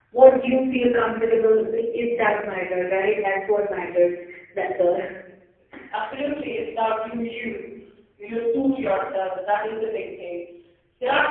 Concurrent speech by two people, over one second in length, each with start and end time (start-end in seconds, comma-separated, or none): none